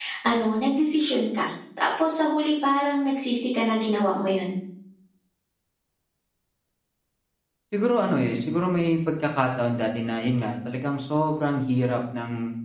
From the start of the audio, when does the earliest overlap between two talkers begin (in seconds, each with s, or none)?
none